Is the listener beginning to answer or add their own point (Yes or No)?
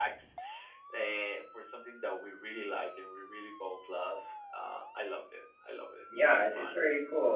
Yes